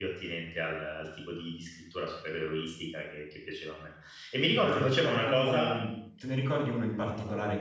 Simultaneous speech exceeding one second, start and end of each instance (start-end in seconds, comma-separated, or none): 4.4-5.7